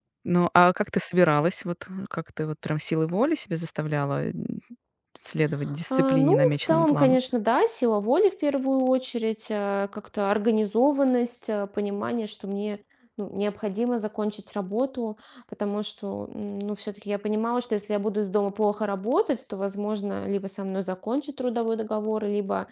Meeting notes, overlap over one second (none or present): present